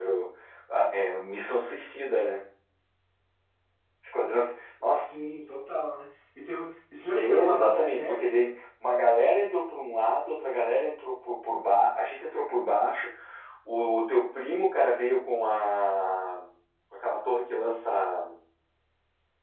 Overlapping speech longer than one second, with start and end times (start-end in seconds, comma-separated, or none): 7.1-8.4